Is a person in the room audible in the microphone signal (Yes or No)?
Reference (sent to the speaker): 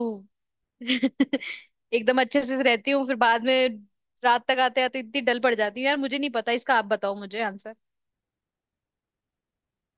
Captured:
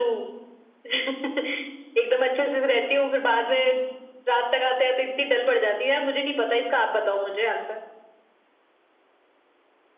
No